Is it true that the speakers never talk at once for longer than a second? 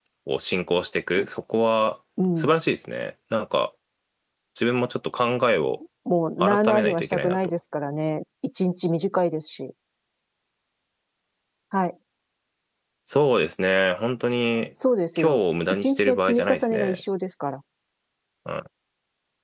No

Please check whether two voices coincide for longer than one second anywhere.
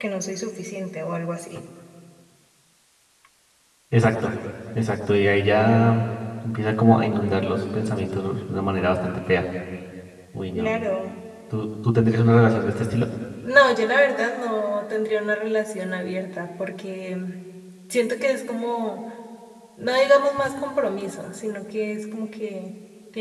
No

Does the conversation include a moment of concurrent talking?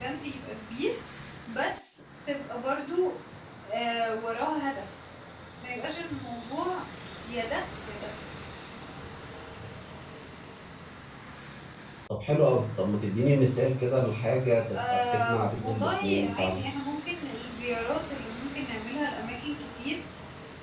Yes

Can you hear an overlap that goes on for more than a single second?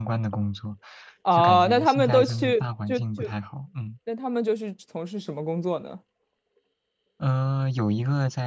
Yes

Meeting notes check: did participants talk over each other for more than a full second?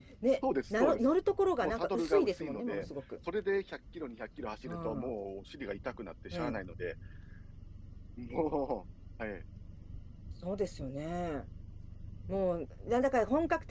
Yes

